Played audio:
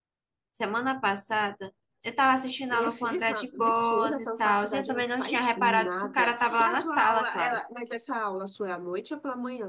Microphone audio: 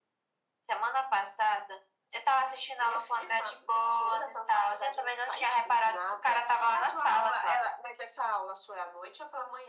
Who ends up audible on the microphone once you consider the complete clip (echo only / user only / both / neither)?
echo only